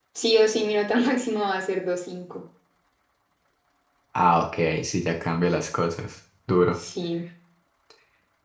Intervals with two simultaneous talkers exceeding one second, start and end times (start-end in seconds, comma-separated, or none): none